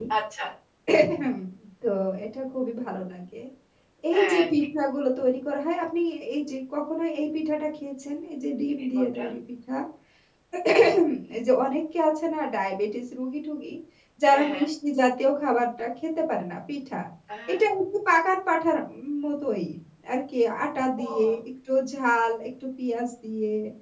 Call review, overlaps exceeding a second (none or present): none